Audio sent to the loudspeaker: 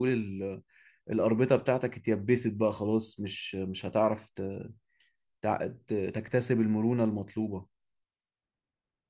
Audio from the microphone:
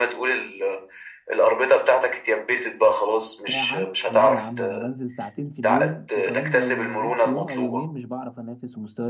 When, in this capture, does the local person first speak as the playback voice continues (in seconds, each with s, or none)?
3.5 s